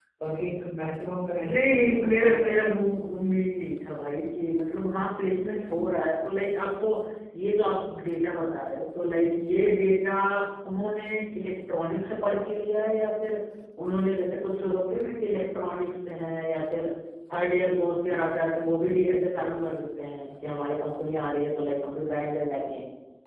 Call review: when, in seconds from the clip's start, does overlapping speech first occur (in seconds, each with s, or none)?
1.4 s